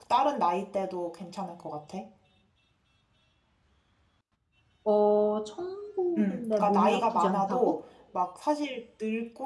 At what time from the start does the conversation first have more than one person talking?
6.2 s

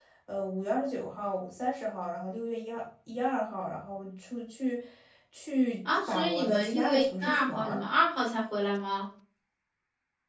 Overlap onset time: 6.0 s

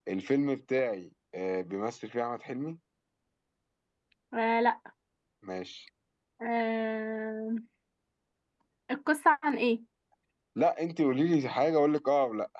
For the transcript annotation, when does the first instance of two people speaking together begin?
none

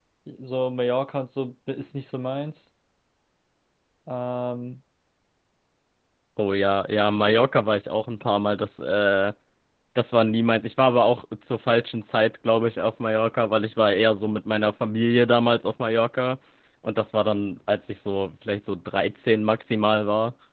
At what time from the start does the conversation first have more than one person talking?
none

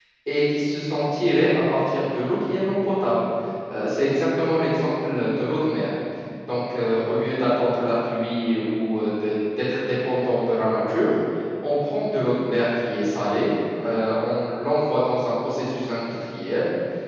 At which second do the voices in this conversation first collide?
none

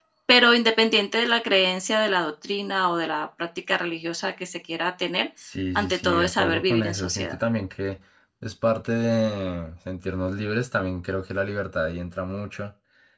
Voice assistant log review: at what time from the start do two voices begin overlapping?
5.8 s

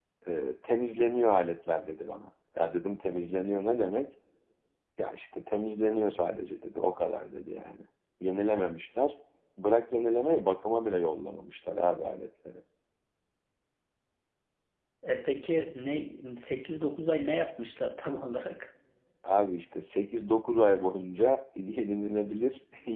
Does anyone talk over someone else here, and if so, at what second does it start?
none

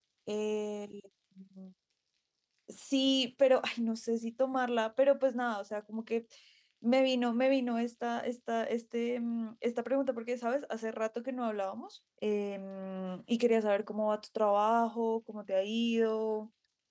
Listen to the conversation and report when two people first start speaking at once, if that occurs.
none

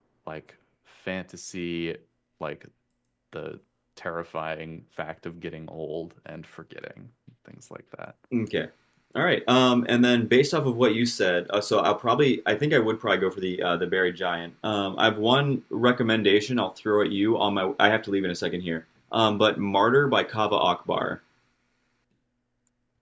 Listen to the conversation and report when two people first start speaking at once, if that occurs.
none

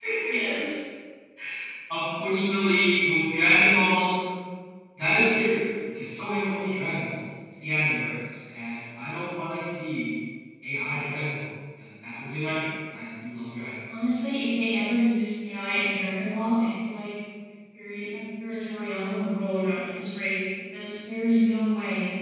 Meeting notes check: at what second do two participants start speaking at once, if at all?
none

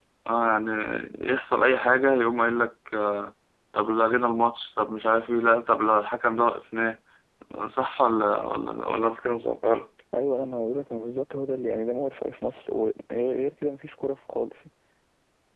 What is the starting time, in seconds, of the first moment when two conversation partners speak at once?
none

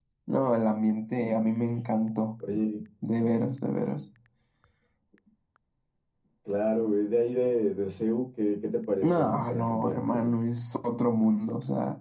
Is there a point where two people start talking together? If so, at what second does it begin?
9.0 s

